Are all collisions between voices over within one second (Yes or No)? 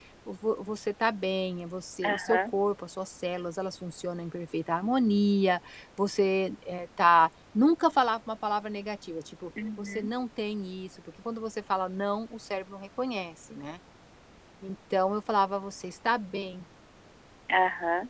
Yes